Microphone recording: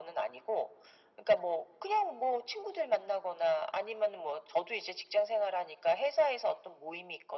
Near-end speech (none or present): none